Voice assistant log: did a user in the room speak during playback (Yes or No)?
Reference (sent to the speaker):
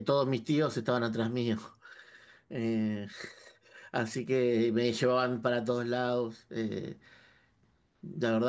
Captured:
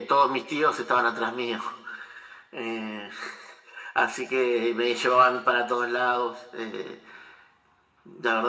No